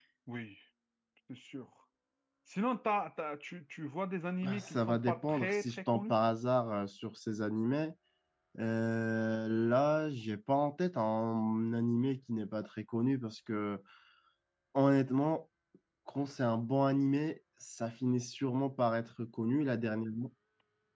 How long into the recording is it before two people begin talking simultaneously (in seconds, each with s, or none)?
4.4 s